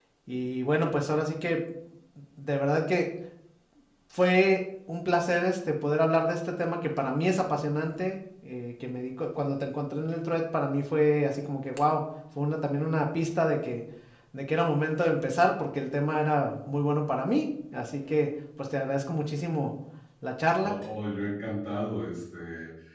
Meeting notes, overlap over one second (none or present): none